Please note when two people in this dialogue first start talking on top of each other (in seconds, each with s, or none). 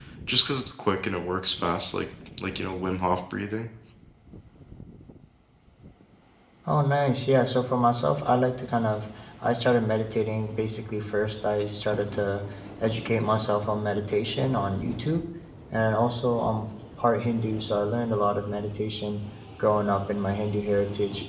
none